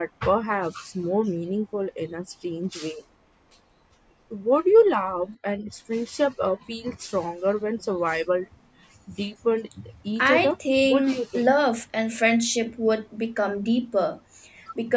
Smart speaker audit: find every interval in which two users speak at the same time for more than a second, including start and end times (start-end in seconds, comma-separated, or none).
10.2-11.5